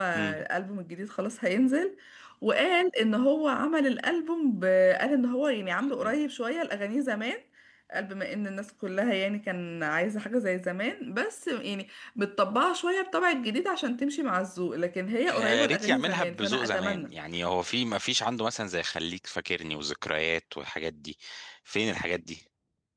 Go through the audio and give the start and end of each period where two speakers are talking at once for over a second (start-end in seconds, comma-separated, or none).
15.3-17.1